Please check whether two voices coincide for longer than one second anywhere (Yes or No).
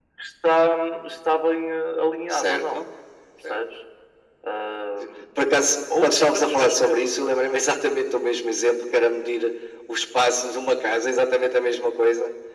Yes